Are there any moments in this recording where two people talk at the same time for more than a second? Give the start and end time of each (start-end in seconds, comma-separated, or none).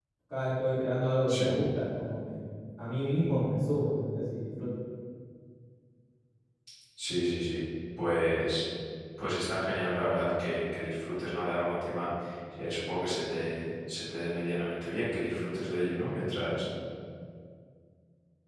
none